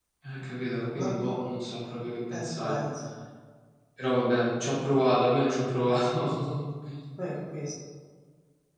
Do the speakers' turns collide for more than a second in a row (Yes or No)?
No